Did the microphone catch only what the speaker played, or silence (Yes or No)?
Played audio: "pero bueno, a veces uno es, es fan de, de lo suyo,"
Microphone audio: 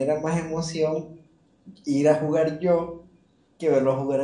No